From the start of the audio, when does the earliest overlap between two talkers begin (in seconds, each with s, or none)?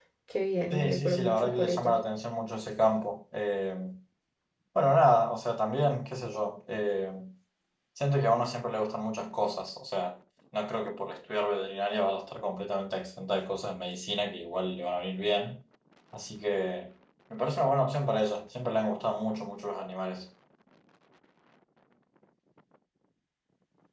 0.7 s